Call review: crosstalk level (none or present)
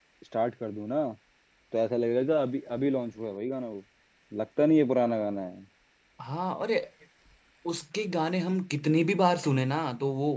none